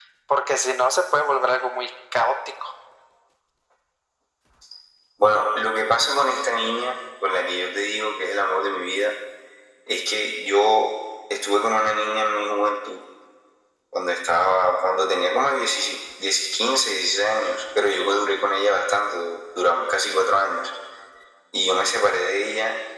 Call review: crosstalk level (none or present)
none